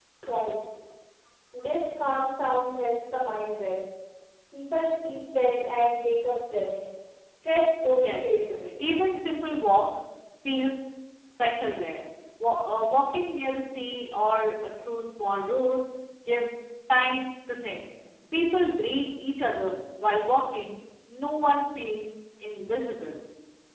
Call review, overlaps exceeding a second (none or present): none